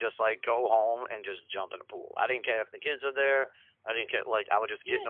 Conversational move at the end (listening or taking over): taking over